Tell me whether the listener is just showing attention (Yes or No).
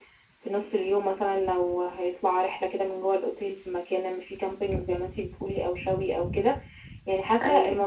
Yes